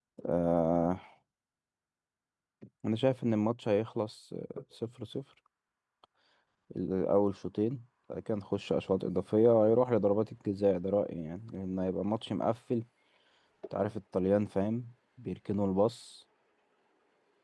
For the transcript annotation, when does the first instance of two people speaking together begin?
none

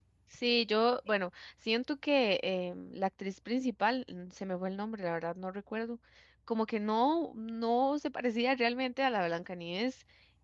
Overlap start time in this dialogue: none

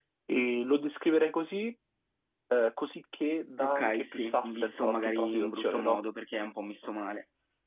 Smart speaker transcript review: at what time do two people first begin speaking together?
3.6 s

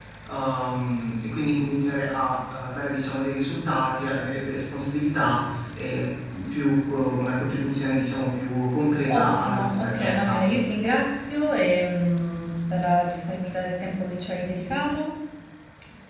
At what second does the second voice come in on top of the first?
9.1 s

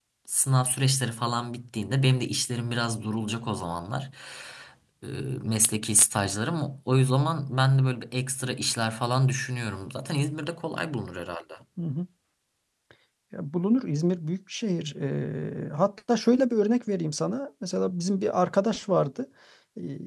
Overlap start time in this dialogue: none

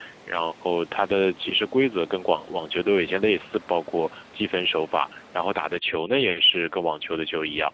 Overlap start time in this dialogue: none

